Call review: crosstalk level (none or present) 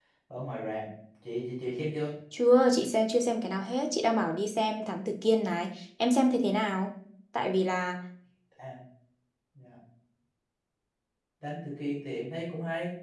none